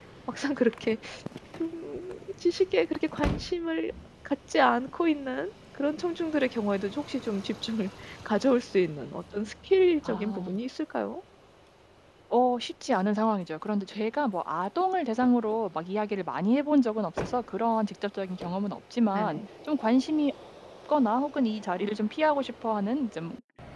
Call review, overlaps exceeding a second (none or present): none